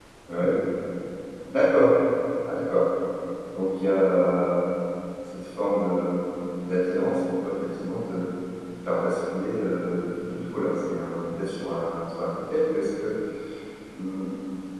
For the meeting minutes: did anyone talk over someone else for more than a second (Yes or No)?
No